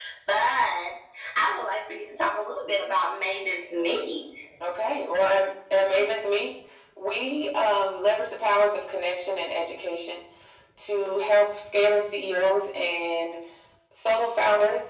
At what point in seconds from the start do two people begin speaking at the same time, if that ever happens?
none

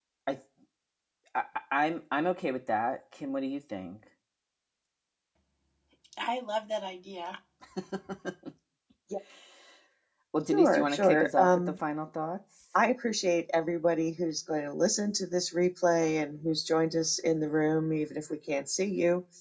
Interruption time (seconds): 10.5 s

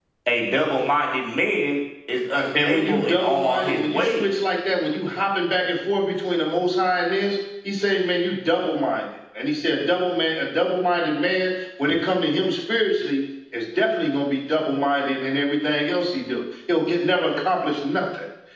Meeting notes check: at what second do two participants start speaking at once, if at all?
2.5 s

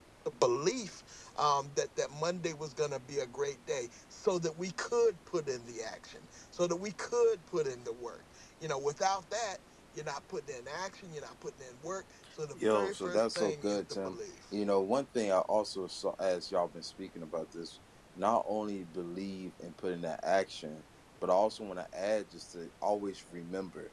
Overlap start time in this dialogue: 12.5 s

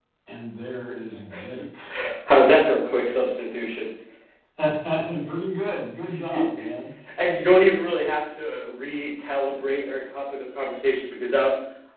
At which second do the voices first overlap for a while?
none

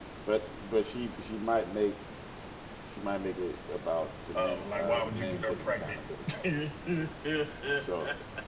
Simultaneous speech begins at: 4.3 s

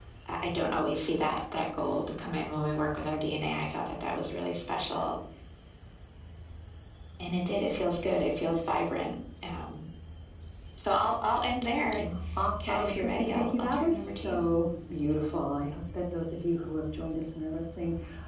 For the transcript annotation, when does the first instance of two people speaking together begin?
12.6 s

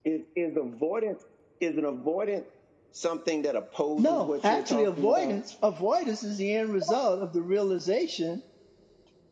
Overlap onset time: 4.0 s

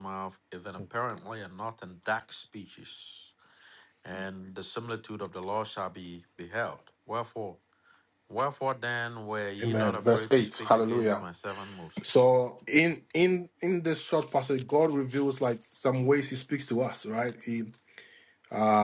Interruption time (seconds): 9.6 s

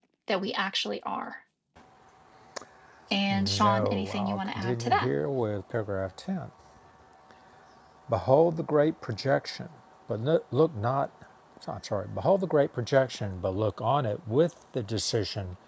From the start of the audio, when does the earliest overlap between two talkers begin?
3.3 s

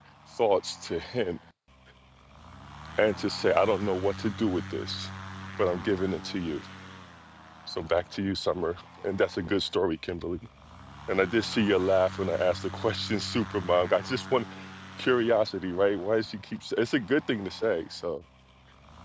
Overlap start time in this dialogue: none

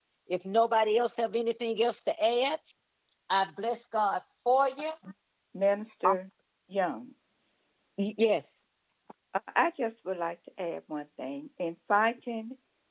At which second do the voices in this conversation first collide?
none

